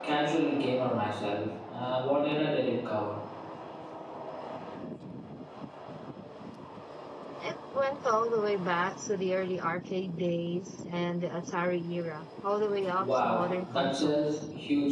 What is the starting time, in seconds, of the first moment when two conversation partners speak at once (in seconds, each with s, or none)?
13.0 s